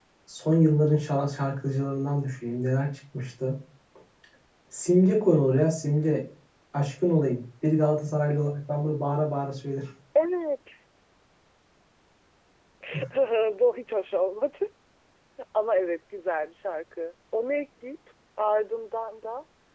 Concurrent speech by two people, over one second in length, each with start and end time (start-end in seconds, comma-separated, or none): none